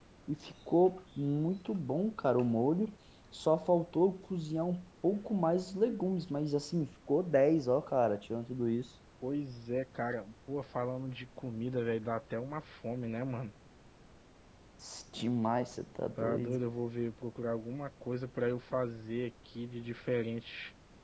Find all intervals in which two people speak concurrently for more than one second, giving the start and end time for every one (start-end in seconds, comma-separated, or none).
none